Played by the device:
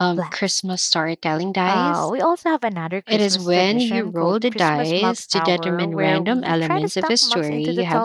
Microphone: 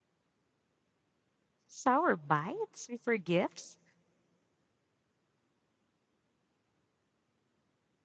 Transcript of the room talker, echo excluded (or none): Sour bites before gifts?